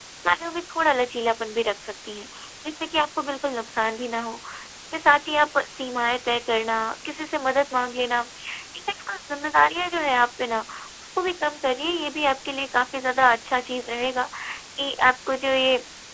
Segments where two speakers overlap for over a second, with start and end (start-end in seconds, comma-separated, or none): none